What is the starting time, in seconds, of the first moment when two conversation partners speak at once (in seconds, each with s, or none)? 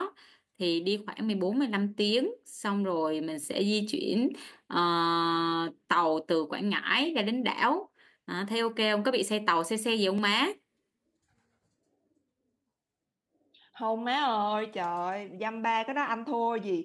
none